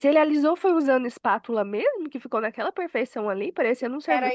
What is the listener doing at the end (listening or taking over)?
taking over